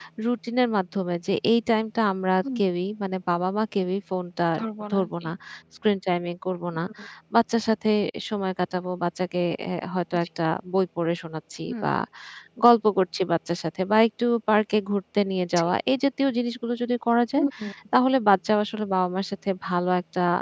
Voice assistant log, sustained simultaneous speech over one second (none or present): none